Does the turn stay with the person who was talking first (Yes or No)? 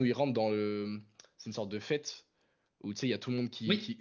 Yes